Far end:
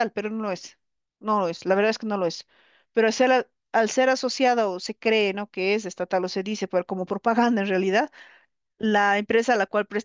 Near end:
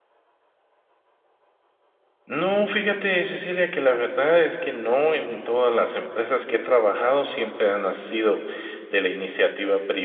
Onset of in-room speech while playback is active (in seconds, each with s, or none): 2.3 s